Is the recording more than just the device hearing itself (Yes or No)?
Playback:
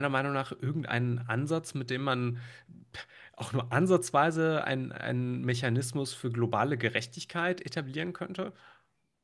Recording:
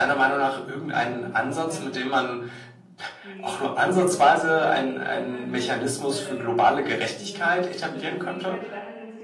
Yes